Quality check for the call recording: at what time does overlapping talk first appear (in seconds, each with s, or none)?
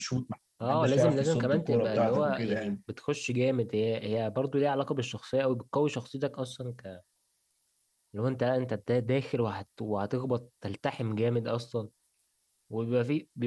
0.6 s